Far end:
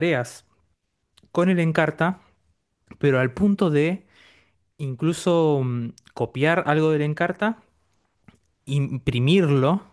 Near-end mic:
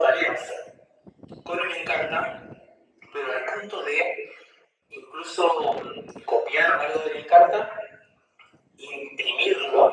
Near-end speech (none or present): none